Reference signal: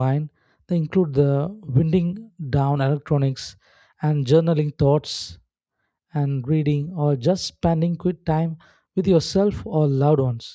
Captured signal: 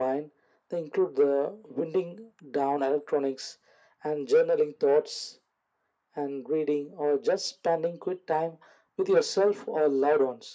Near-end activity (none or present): none